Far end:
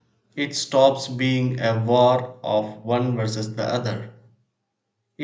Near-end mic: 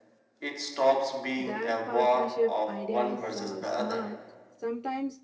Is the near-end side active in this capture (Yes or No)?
Yes